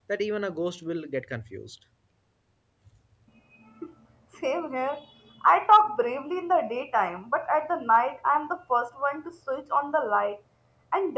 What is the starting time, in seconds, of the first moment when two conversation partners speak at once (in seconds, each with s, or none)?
none